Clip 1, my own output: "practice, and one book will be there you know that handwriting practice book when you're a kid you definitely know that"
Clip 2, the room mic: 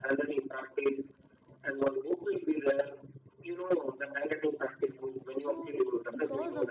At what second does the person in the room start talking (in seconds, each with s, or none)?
5.4 s